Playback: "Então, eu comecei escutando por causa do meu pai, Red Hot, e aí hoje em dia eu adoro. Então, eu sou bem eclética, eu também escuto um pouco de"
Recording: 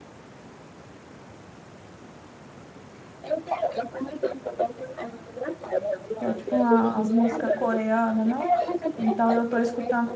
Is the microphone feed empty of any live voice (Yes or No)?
No